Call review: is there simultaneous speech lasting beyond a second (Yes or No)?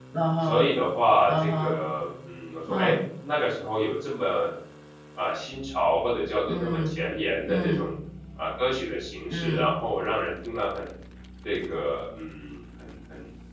No